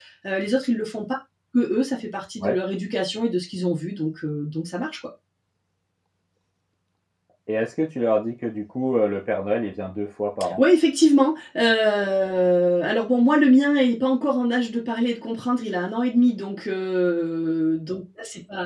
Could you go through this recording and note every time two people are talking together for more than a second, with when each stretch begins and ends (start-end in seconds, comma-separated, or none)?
none